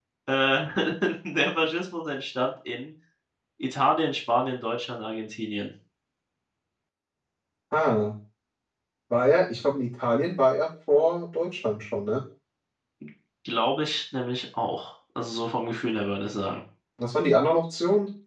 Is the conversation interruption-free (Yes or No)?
Yes